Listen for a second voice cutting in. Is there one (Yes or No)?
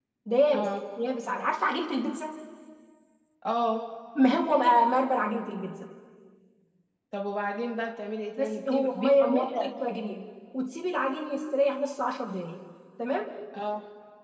Yes